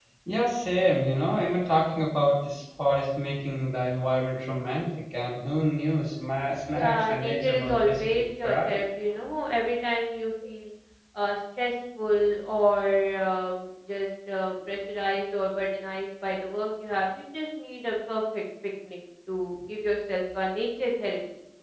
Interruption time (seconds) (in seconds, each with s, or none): 6.7 s